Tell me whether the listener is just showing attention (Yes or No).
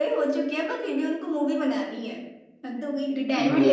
No